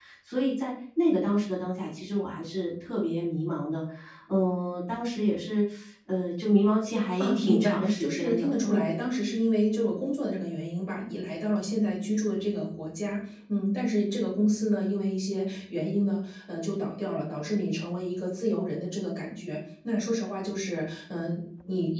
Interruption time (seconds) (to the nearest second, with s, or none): 7 s